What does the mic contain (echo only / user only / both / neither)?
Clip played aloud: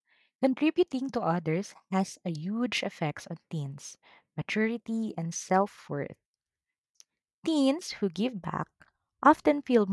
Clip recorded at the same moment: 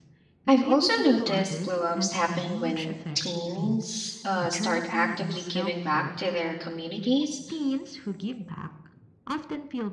both